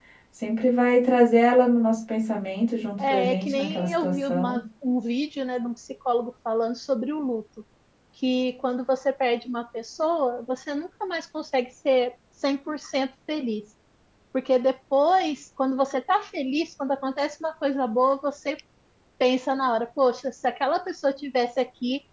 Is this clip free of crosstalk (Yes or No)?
No